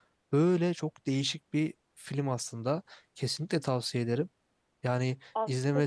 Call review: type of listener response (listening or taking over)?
taking over